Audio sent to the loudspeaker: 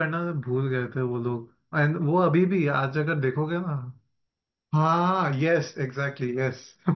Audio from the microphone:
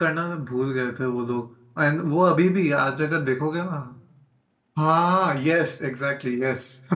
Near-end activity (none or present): none